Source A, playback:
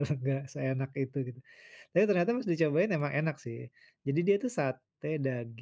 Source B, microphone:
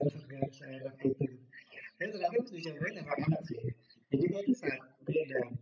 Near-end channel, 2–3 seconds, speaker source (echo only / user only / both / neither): echo only